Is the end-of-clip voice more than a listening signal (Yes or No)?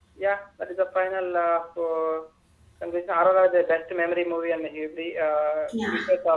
No